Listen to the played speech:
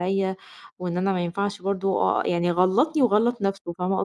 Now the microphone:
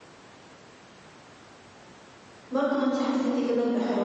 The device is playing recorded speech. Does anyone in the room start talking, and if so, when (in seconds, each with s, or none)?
2.5 s